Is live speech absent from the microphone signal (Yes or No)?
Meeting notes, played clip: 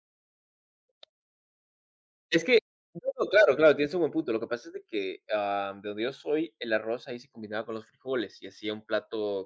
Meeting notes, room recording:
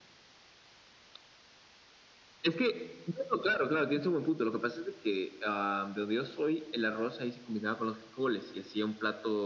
Yes